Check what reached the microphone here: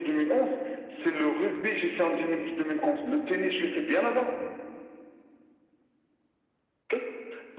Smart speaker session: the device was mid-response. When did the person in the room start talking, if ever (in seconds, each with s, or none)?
none